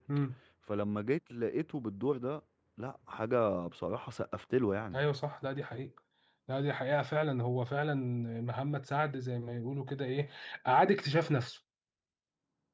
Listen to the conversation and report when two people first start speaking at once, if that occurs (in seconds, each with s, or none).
none